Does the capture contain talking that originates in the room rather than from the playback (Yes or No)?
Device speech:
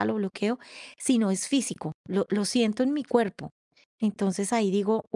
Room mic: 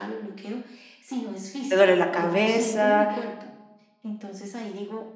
Yes